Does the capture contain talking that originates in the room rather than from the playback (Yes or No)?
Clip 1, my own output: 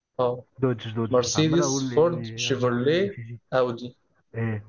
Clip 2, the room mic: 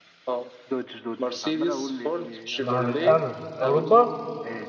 Yes